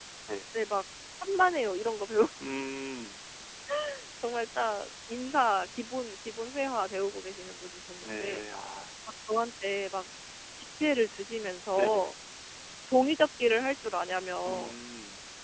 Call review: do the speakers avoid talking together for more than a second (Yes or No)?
Yes